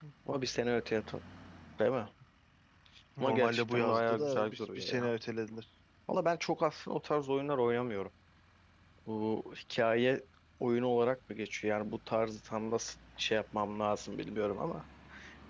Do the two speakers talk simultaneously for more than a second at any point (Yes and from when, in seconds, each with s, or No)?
Yes, from 3.2 s